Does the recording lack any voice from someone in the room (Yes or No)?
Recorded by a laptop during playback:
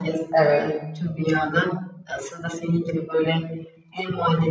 No